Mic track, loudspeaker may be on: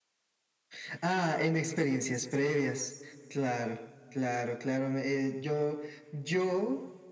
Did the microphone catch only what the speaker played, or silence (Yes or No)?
Yes